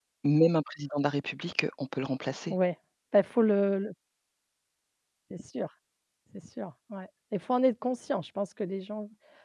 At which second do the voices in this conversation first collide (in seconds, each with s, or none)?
none